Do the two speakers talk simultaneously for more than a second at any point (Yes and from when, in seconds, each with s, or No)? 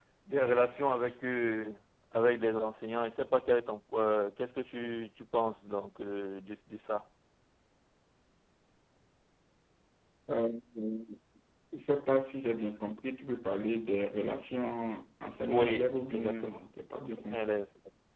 Yes, from 15.4 s